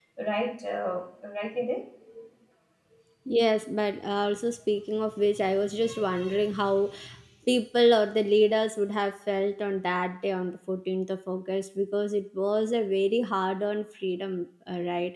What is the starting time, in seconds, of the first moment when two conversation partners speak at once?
none

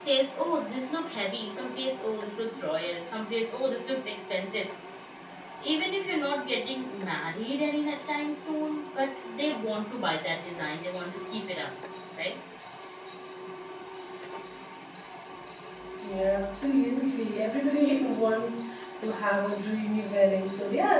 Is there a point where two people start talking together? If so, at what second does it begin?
none

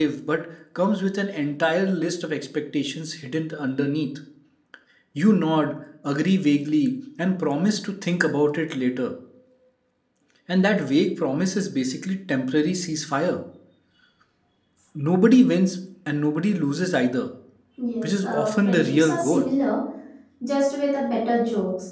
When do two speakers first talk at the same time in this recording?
18 s

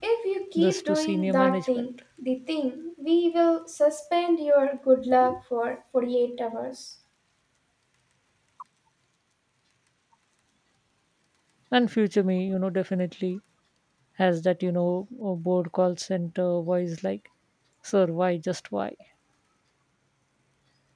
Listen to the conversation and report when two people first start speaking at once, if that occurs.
1 s

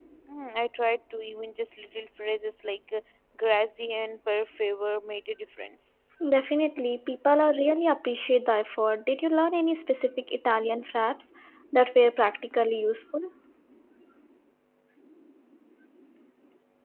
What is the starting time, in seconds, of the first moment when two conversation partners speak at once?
none

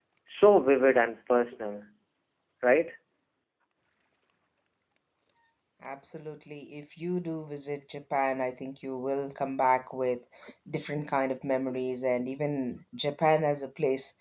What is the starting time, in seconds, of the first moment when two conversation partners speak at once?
none

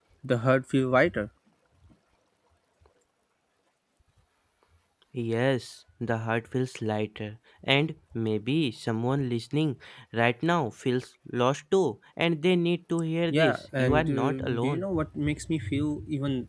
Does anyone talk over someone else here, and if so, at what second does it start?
13 s

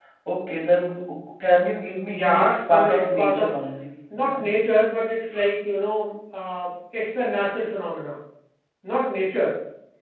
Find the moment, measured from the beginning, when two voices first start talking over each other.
2 s

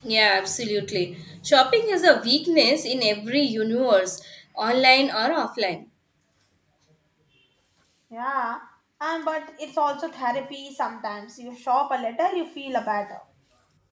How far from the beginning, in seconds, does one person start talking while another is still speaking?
none

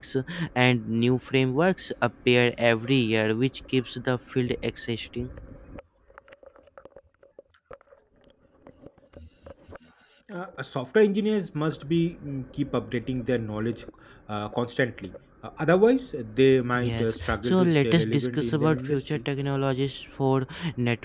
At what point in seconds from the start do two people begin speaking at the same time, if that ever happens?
17 s

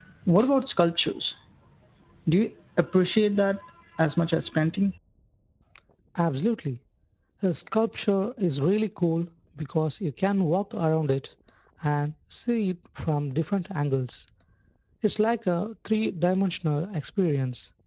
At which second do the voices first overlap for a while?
none

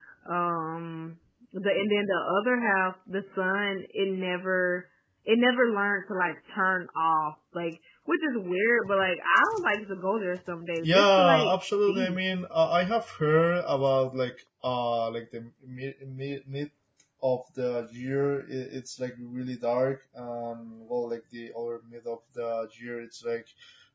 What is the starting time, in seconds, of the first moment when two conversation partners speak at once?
11 s

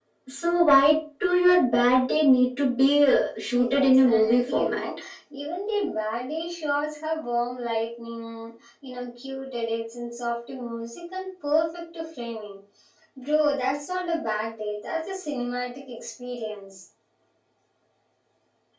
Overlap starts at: 4 s

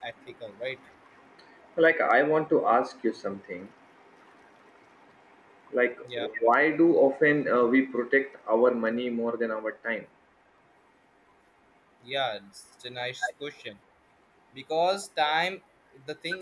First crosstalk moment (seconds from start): none

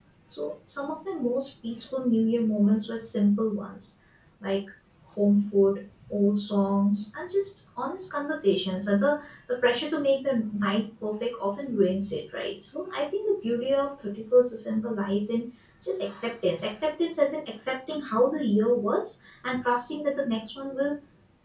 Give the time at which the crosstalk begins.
none

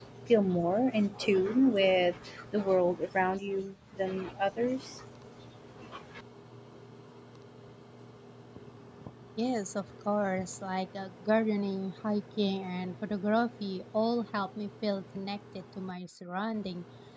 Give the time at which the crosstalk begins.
none

